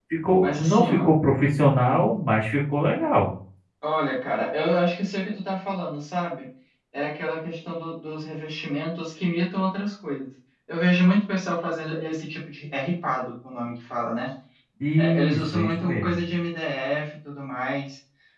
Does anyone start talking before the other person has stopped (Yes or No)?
Yes